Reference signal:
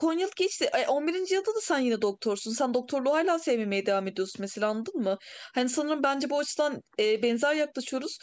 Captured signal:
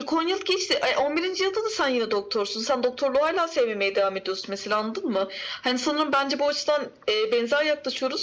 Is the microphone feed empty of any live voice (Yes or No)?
Yes